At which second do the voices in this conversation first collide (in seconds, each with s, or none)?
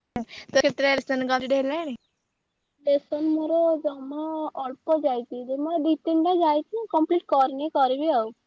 none